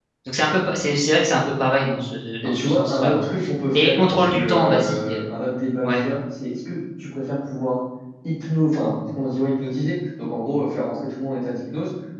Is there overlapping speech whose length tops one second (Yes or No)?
Yes